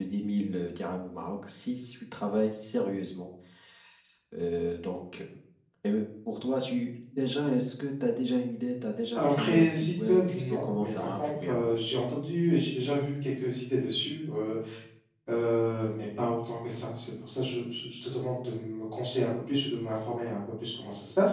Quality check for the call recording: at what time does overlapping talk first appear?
9 s

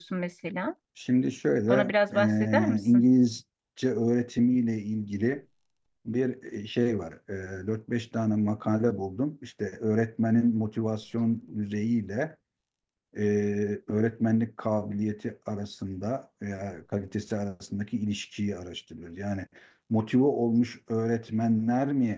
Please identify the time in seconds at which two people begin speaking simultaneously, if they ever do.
2 s

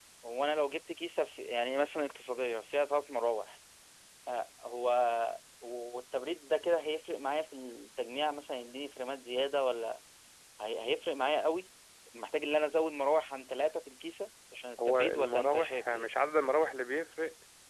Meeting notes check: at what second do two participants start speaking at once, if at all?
15 s

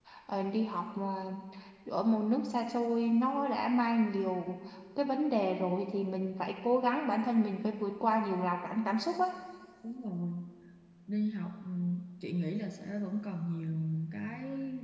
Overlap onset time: none

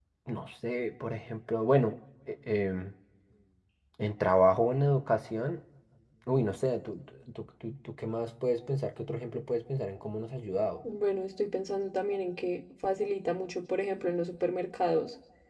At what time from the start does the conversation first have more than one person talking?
none

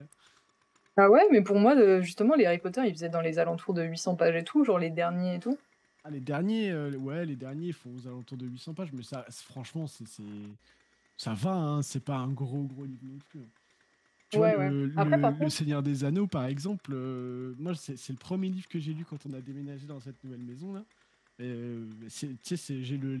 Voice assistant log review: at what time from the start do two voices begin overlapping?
14 s

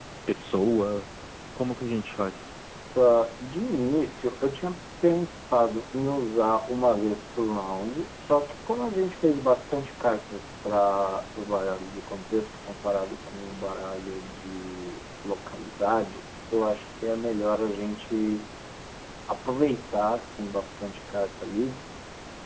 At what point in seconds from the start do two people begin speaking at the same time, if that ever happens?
none

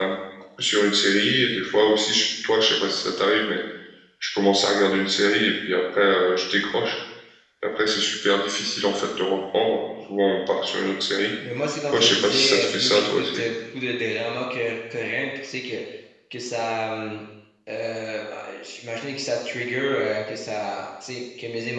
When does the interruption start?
12 s

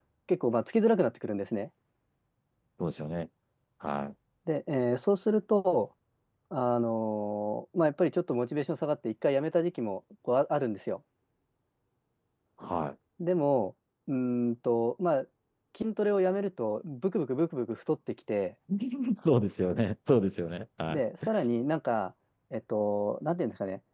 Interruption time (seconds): none

